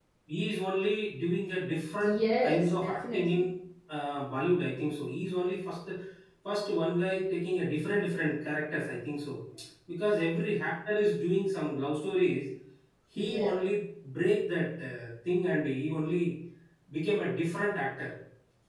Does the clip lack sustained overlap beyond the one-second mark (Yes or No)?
No